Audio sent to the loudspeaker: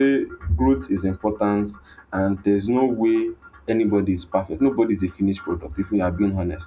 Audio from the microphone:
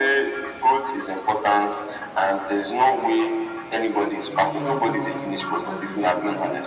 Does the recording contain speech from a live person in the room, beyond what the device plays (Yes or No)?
Yes